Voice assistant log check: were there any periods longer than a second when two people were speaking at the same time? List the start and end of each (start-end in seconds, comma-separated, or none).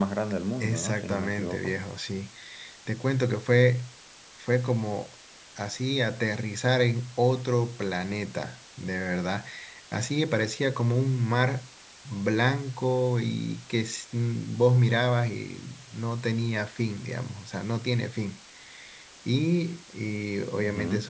0.6-1.8